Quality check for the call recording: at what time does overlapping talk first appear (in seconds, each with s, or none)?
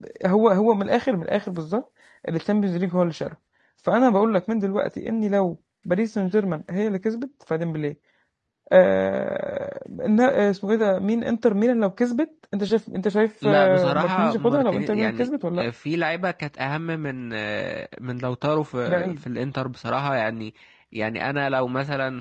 13.4 s